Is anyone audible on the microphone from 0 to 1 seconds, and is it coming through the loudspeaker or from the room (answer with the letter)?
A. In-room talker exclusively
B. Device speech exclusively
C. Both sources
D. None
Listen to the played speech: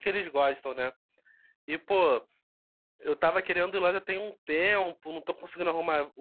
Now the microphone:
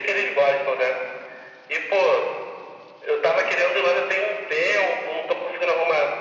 B